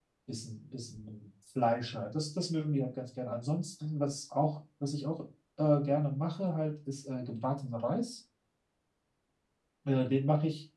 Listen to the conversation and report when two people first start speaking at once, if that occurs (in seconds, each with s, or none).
none